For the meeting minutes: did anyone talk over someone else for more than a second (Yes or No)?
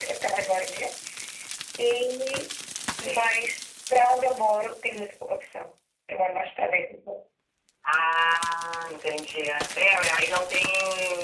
No